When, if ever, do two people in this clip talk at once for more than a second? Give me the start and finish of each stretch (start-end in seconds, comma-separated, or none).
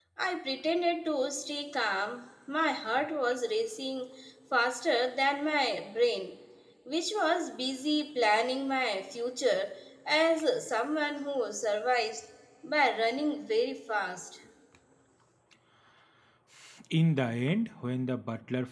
none